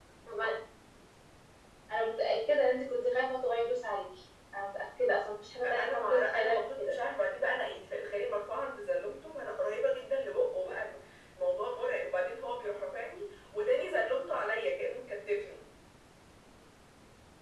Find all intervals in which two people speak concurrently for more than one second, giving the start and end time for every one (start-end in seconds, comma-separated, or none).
5.7-6.9